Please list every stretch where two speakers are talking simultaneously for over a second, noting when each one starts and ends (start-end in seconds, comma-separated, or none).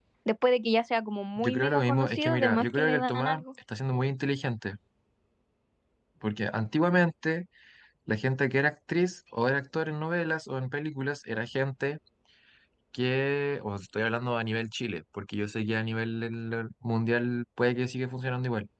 1.4-3.4